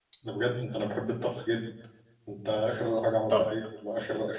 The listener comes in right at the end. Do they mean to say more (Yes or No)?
No